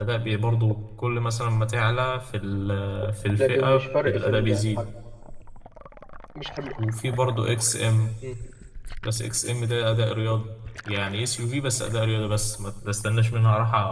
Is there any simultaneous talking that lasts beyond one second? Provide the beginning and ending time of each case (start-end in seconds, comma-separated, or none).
3.4-4.8